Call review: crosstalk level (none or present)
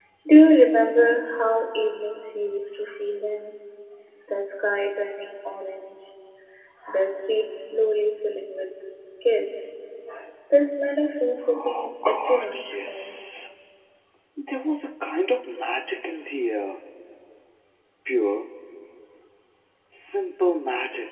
present